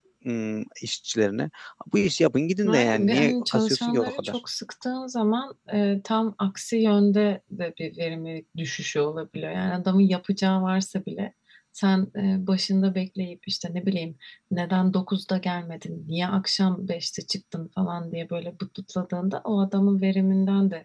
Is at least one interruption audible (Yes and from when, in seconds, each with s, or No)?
Yes, from 2.7 s